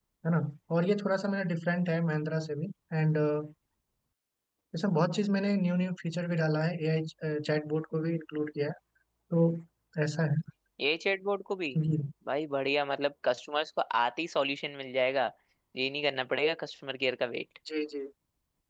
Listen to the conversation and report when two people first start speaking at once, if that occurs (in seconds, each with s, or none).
none